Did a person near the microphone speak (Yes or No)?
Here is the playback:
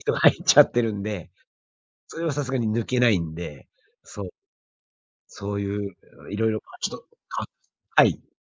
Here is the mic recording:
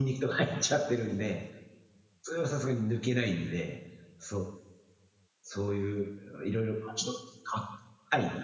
No